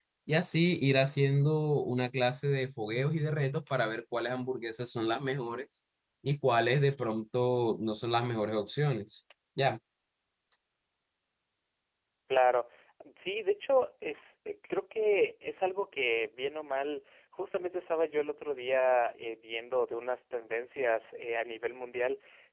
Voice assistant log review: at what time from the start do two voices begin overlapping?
none

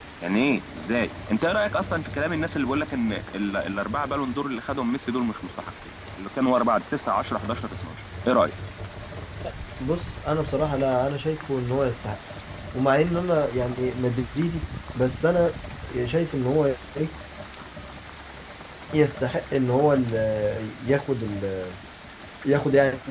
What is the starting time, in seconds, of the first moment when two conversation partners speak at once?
none

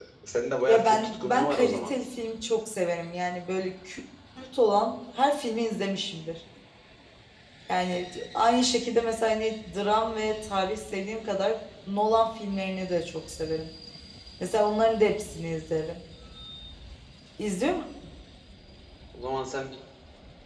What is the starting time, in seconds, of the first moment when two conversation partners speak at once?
1 s

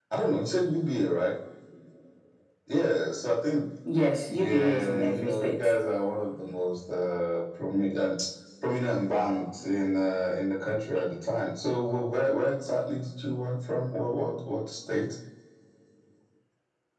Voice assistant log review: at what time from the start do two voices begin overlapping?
4 s

